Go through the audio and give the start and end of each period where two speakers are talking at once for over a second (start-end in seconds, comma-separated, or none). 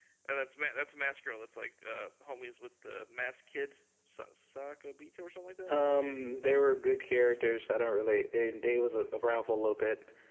none